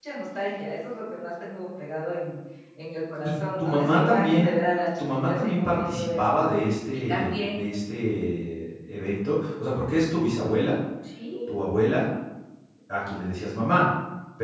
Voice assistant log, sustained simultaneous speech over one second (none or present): present